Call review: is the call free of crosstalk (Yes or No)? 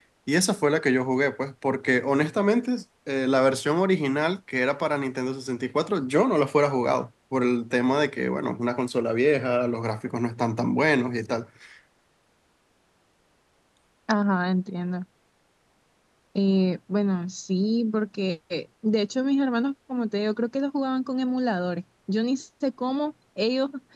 Yes